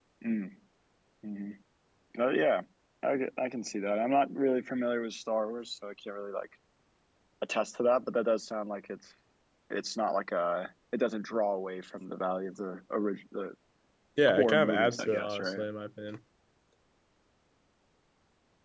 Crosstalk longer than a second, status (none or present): present